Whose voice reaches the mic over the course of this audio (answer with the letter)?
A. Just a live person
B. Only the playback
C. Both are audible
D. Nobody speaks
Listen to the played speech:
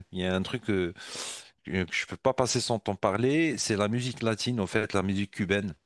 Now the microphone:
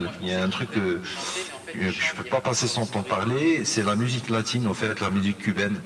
C